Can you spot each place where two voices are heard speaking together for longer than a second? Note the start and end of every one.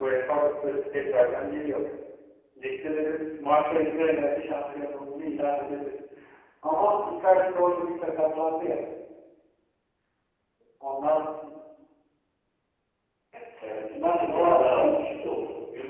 13.9-15.4

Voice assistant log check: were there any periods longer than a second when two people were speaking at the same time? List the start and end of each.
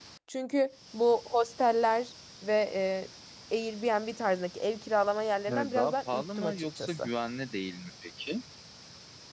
5.5-7.1

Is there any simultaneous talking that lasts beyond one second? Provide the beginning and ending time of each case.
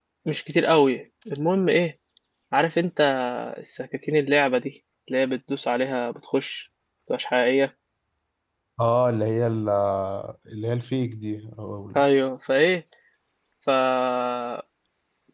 none

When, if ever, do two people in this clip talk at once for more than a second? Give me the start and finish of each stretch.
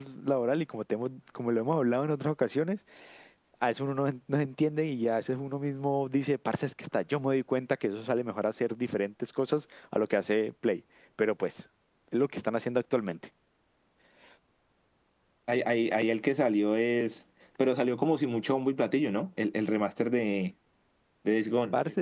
none

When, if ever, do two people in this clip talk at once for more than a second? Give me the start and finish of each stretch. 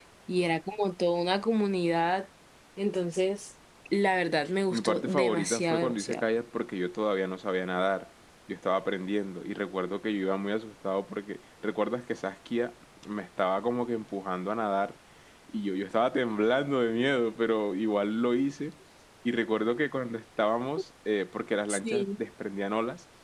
4.7-6.2

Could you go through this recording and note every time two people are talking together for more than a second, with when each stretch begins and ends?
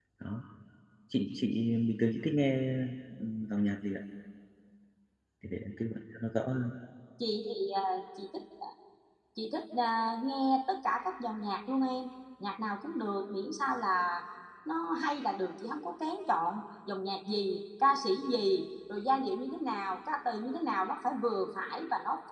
none

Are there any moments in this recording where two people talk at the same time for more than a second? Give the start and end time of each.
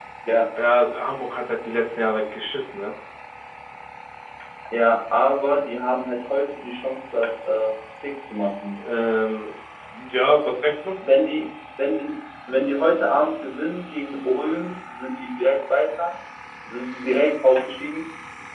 none

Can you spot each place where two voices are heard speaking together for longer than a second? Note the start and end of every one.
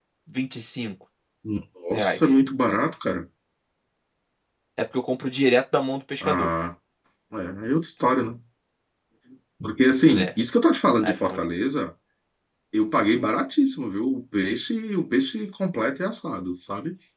none

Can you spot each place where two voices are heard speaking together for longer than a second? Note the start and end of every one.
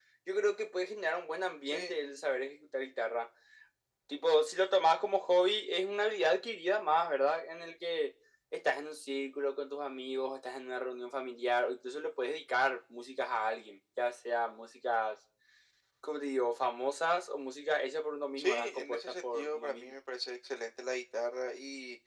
18.4-20.0

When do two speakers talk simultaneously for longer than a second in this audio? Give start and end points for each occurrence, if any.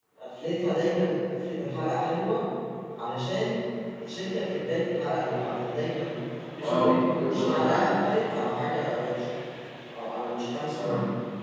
6.6-7.9

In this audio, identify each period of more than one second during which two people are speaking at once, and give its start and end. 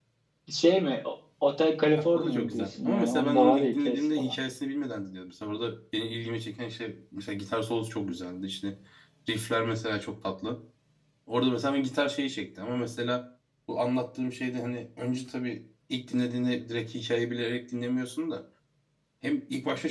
1.9-4.3

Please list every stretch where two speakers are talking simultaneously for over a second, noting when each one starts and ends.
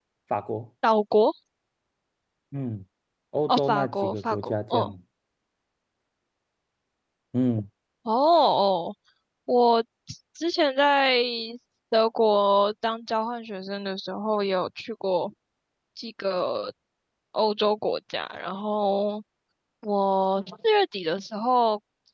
3.5-4.9

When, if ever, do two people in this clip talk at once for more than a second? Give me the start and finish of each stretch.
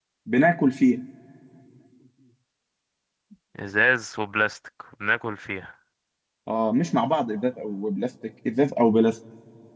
none

